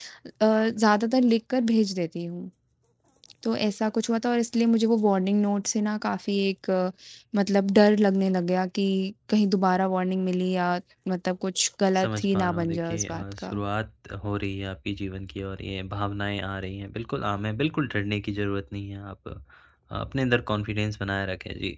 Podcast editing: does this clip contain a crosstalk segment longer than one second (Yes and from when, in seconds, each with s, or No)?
Yes, from 11.9 s